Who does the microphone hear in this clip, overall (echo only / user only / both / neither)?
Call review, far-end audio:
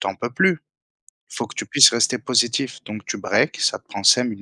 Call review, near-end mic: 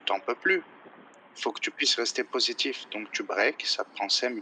echo only